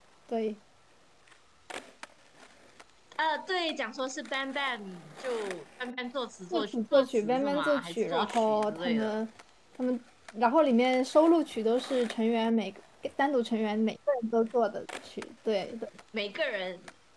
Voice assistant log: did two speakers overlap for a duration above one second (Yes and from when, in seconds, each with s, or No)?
Yes, from 6.5 s